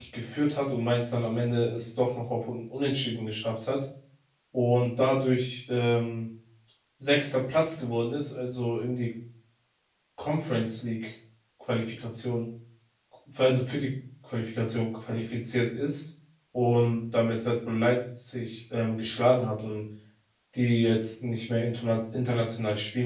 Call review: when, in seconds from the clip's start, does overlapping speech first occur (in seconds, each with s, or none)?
none